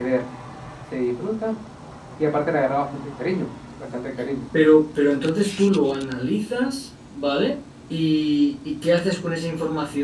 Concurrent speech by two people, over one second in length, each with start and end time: none

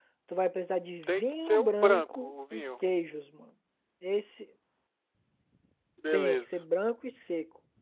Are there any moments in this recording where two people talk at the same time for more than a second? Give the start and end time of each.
1.0-2.9

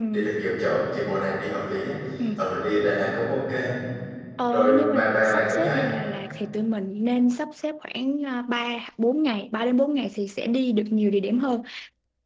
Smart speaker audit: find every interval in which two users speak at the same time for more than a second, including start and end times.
4.5-5.8

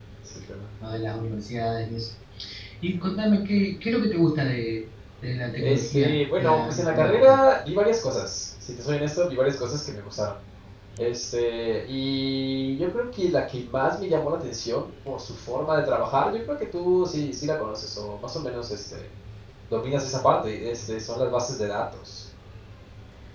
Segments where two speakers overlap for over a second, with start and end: 5.6-7.4

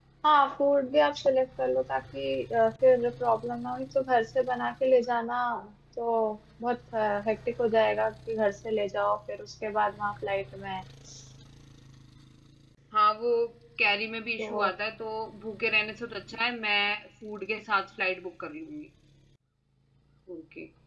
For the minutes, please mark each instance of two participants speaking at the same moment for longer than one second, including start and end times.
none

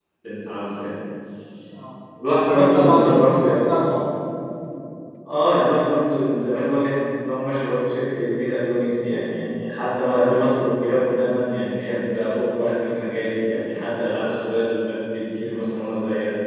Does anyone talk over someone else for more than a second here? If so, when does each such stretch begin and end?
2.5-3.9

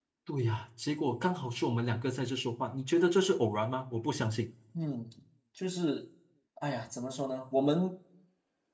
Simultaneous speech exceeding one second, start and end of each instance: none

